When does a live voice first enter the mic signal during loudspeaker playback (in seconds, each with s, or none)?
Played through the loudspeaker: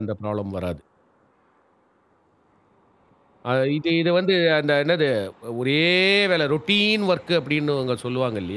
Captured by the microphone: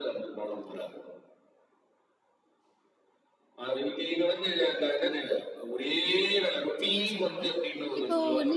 6.8 s